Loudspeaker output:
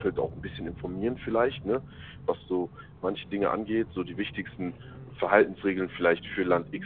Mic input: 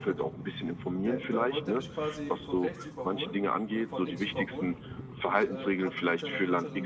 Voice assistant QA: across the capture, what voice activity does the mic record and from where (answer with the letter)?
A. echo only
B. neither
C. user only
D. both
D